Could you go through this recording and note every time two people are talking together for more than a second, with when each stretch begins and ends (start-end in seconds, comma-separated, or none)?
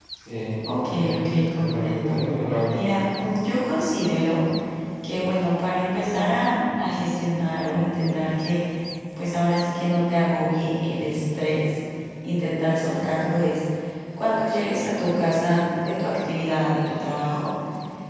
0.7-2.2